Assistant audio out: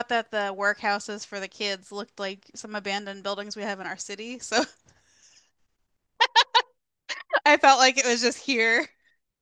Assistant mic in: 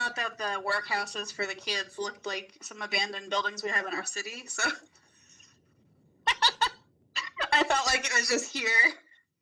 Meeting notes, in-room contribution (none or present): none